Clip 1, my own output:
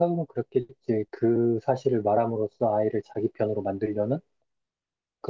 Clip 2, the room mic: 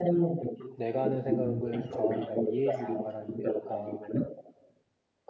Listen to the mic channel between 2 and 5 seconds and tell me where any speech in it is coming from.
both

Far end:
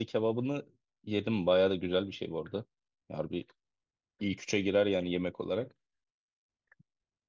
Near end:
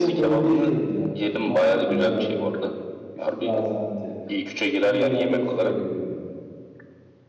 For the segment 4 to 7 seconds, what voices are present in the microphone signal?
both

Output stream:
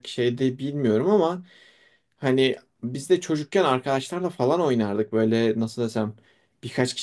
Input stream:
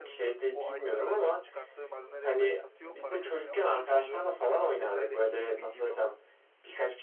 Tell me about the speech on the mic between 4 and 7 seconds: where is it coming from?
both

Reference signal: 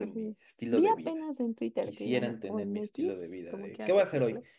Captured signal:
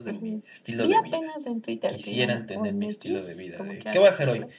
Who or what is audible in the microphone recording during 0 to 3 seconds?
echo only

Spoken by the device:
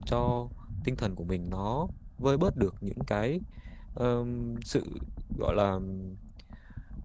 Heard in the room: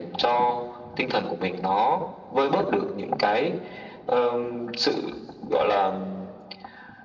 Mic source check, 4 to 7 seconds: echo only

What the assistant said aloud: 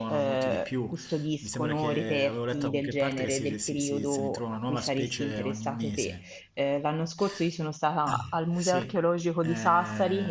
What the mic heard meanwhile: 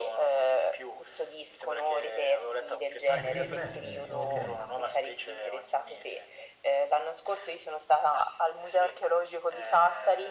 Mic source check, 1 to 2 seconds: echo only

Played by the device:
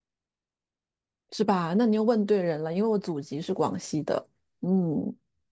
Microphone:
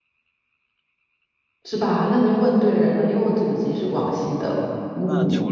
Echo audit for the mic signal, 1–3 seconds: echo only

